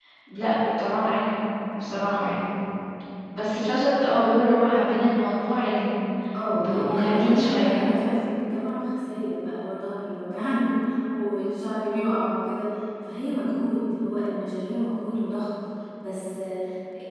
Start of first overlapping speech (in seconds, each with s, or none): 6.5 s